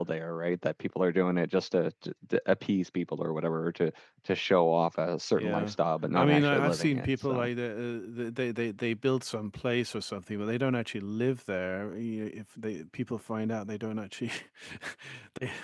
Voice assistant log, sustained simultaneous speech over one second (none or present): present